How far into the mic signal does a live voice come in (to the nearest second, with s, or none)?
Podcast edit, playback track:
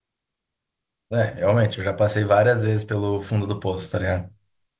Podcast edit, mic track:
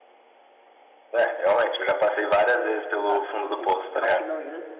3 s